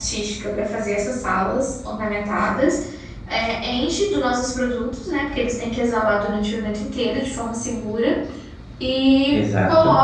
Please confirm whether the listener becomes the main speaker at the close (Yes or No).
No